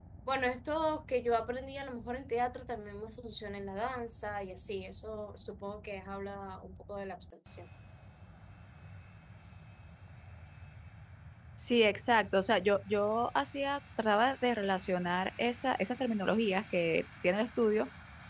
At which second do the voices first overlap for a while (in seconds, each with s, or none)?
none